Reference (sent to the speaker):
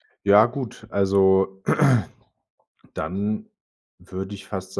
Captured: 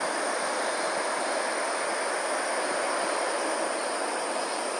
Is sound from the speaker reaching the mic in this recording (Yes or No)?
No